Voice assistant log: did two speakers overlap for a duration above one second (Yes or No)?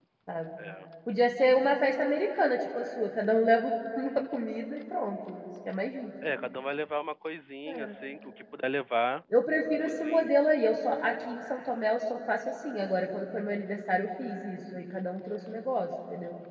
No